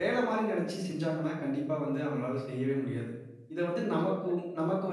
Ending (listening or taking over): listening